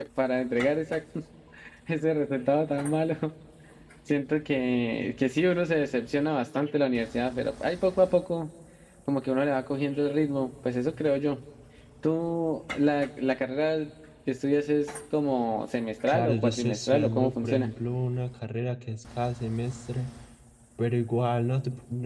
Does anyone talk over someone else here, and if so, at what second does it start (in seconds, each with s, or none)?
16.1 s